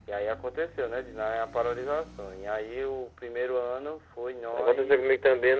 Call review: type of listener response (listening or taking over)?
taking over